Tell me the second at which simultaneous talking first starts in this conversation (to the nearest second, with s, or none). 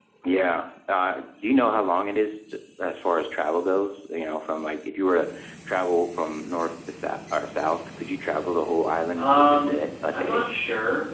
9 s